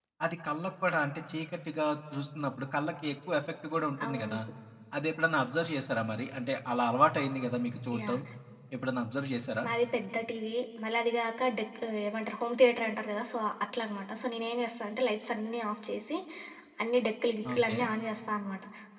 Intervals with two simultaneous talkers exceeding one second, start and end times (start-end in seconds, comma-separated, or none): none